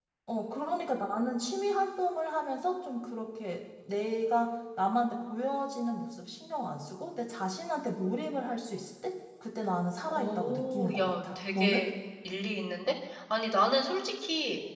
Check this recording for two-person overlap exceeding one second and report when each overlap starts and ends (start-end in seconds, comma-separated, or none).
10.1-11.9